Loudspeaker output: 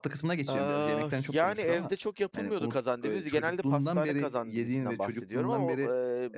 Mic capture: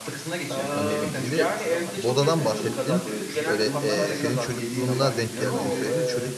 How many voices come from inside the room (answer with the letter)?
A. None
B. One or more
B